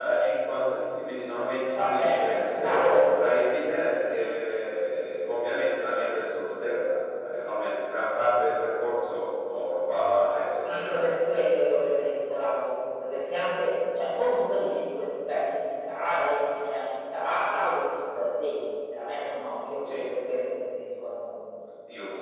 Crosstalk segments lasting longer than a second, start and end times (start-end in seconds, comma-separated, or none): 1.8-3.3